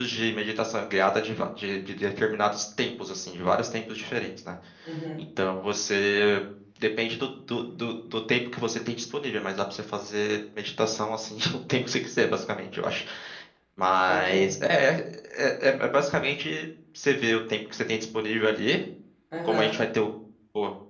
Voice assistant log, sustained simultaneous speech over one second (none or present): none